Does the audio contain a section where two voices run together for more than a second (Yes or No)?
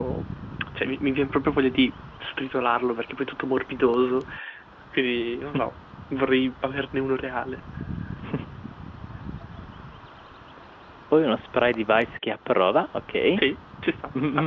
No